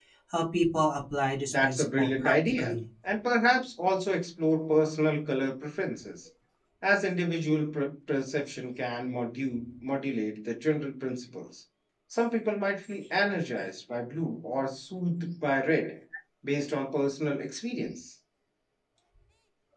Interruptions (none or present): present